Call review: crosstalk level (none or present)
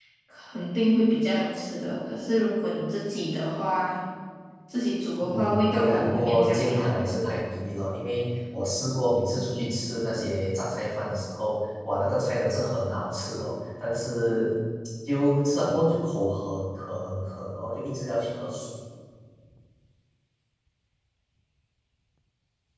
present